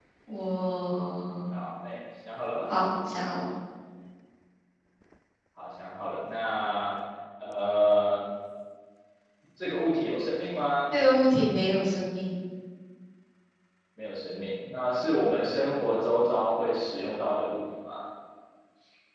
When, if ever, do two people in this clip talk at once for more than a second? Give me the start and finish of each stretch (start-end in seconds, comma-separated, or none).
none